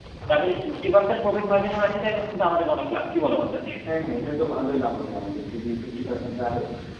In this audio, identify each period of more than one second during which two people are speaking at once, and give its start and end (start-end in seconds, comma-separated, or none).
none